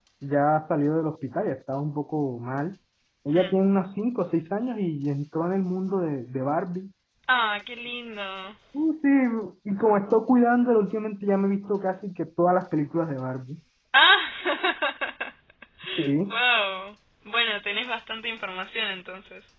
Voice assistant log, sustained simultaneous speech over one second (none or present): none